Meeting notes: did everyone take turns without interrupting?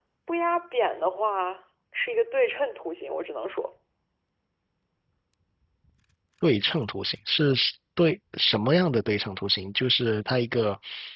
Yes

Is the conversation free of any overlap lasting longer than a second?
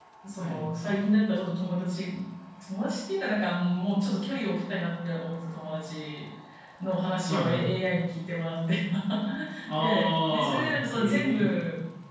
No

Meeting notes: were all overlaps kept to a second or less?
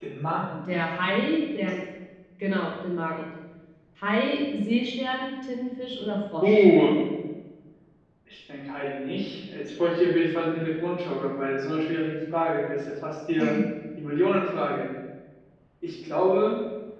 Yes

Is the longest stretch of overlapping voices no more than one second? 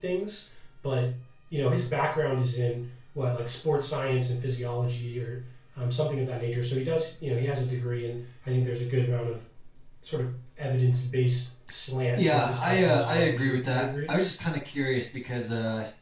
No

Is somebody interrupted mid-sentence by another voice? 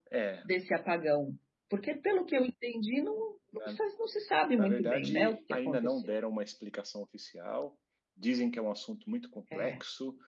Yes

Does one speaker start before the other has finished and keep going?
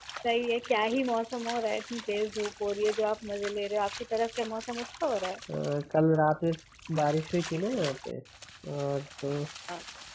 No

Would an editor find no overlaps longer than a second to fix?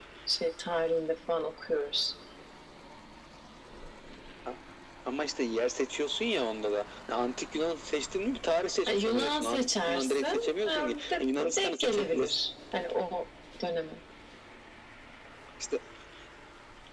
No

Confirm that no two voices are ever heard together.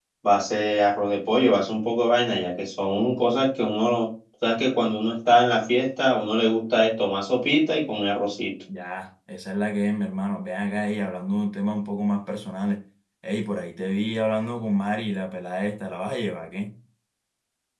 Yes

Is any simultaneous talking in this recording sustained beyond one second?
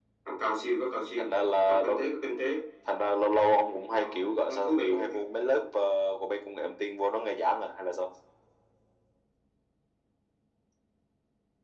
Yes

